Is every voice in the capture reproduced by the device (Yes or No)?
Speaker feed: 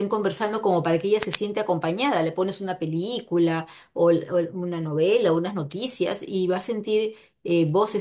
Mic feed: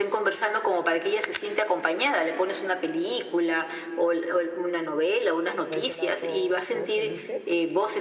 No